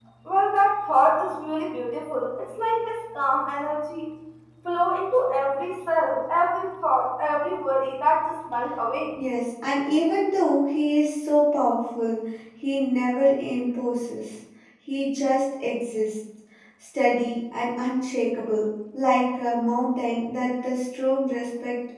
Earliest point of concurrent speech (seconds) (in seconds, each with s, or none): none